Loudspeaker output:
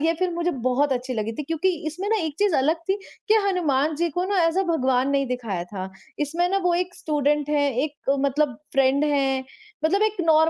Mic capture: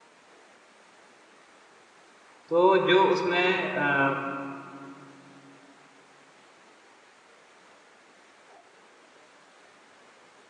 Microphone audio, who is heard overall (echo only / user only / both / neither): user only